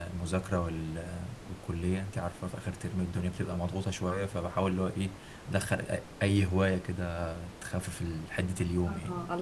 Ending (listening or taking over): taking over